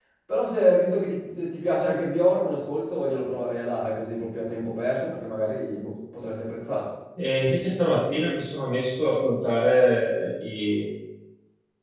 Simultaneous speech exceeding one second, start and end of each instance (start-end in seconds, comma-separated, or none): none